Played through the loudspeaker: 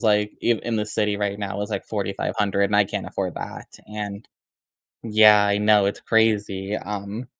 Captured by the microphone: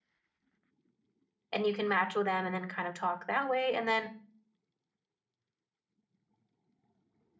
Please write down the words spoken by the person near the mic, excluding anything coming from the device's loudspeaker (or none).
and you can match with them and then kind of talk that way. And then